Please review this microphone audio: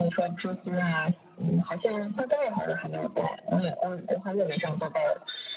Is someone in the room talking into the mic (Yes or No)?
No